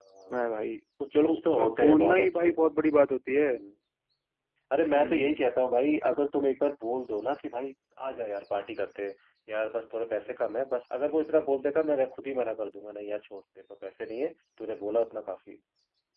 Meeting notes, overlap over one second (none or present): present